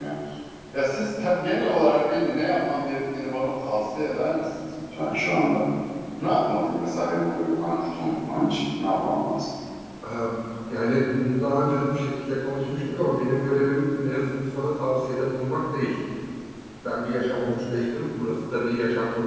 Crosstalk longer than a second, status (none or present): none